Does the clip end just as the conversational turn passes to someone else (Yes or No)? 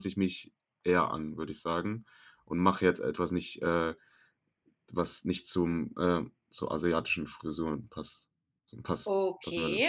Yes